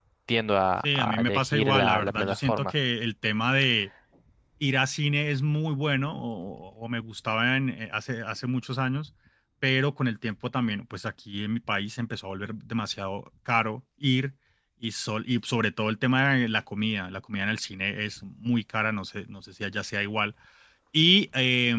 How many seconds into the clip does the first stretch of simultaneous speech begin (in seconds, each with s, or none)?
0.8 s